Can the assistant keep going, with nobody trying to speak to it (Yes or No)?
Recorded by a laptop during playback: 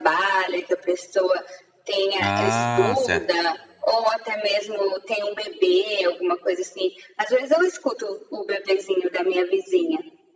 No